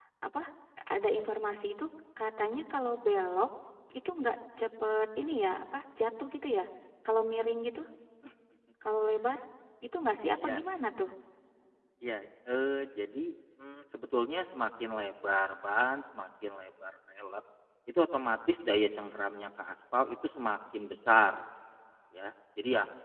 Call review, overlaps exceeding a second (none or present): none